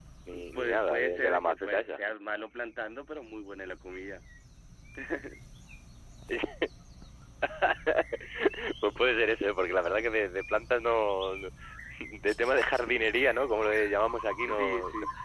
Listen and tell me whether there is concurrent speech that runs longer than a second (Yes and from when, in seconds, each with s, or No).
Yes, from 0.5 s